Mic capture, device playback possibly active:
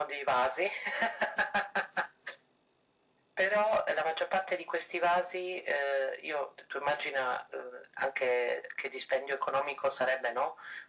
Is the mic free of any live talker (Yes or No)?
Yes